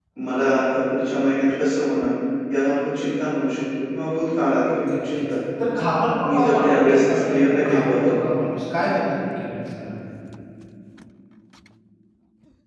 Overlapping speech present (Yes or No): Yes